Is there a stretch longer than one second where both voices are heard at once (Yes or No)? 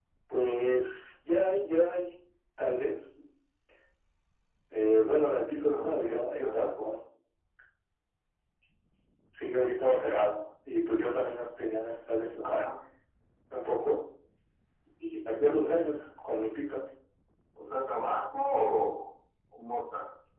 Yes